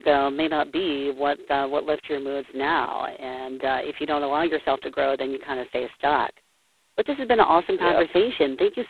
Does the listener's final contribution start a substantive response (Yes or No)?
No